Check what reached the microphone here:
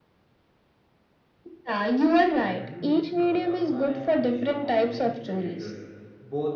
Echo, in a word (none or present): present